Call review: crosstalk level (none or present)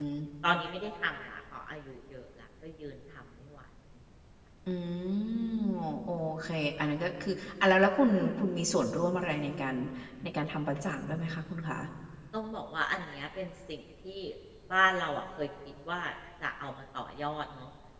none